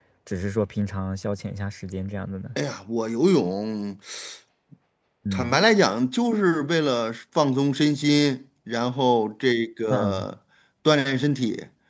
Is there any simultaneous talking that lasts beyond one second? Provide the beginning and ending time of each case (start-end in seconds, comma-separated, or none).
none